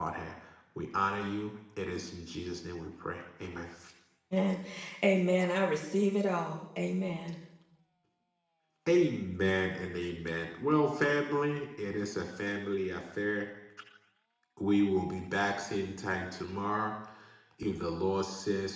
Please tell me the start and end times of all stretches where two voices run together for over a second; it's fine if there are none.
none

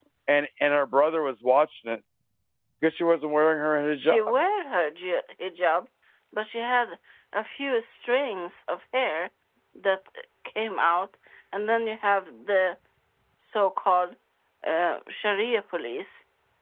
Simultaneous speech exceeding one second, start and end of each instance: none

